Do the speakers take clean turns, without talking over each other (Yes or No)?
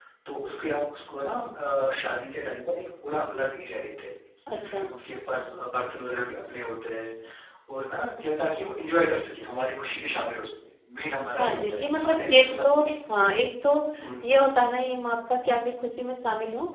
No